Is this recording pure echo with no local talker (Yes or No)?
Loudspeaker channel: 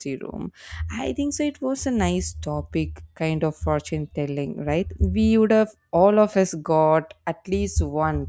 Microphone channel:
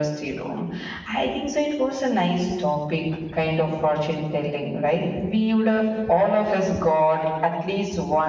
Yes